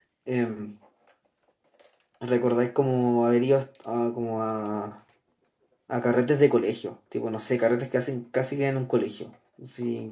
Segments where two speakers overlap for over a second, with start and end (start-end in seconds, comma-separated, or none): none